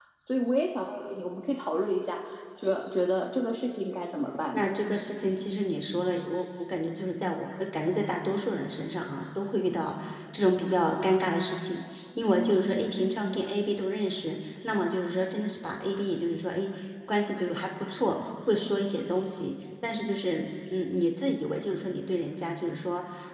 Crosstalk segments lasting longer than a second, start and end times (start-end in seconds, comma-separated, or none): none